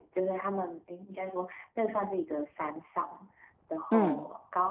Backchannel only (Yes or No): Yes